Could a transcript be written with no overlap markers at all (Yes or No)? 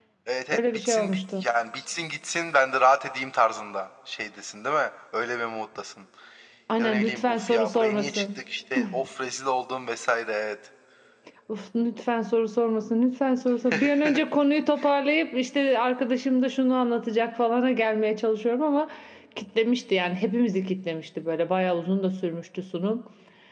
No